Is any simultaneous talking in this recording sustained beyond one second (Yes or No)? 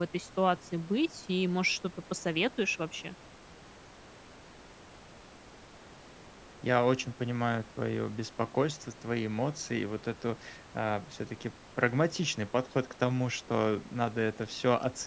No